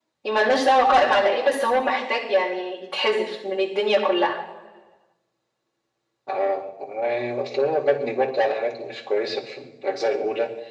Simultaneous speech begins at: none

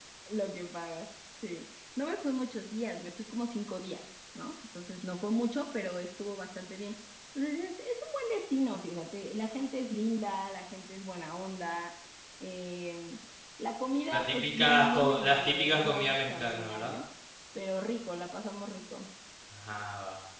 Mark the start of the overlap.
14.1 s

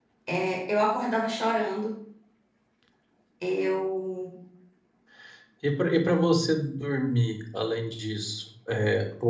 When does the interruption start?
none

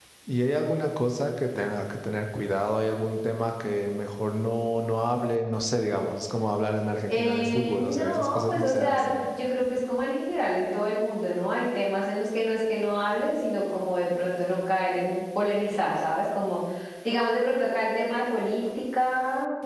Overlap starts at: 7.1 s

